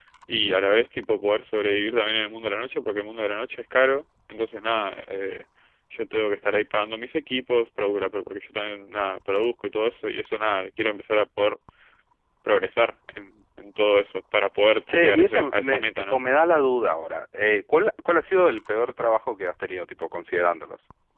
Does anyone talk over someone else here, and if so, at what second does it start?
15 s

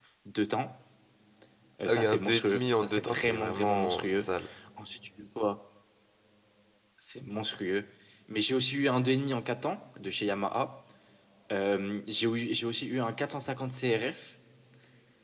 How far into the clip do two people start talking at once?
2 s

